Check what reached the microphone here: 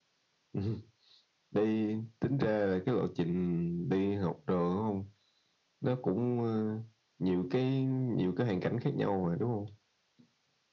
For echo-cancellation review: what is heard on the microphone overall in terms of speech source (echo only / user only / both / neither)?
echo only